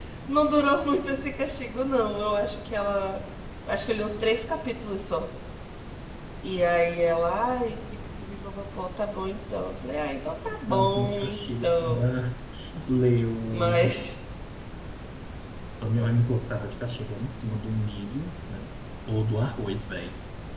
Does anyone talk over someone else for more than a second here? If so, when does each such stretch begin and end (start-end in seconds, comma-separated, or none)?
10.7-12.1